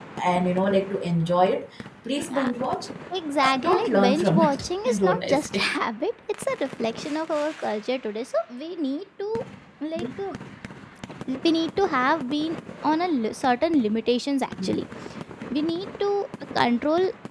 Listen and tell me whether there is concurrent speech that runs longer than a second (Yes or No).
Yes